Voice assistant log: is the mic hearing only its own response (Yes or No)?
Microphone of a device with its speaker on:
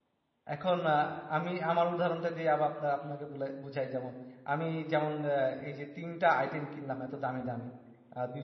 No